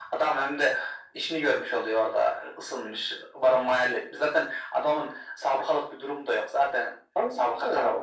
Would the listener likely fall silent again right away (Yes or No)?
No